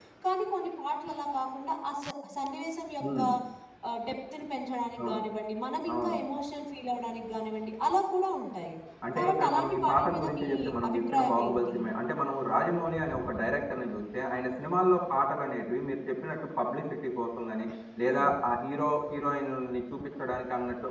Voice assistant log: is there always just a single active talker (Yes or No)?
No